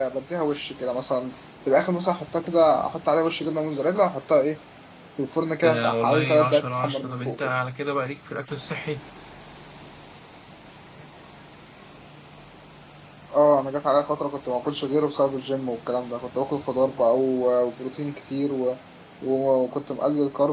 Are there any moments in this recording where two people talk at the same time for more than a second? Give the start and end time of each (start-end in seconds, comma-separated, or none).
5.6-7.5